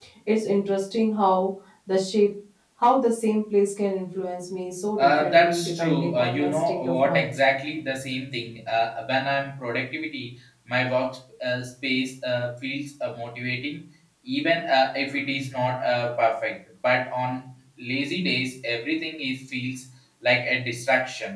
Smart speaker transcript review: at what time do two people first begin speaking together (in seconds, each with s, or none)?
5.0 s